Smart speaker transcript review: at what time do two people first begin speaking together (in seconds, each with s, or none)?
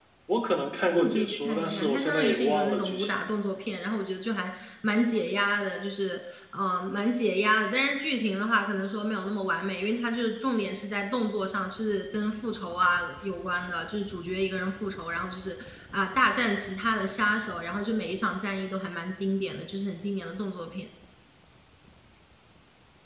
1.0 s